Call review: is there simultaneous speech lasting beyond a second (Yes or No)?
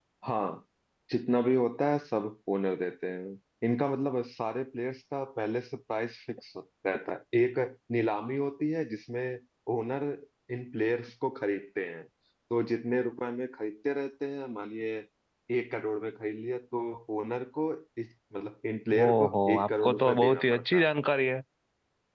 Yes